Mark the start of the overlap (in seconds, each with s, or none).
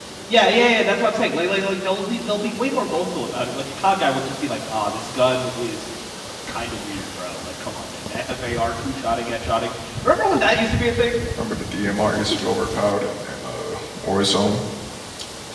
none